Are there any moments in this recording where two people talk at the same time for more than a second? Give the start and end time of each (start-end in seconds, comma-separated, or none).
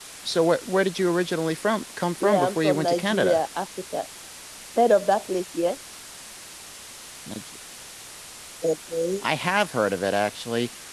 2.2-3.4